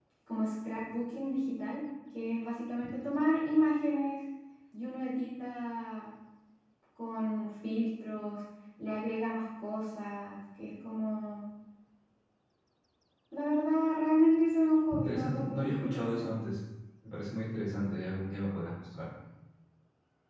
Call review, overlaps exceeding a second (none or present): present